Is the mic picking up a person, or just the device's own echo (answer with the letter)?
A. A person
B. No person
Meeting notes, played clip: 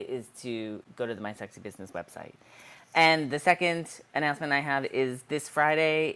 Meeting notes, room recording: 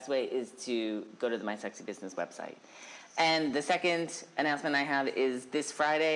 B